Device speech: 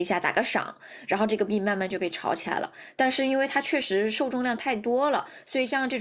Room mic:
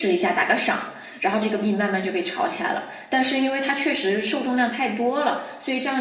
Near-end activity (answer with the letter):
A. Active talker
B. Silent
B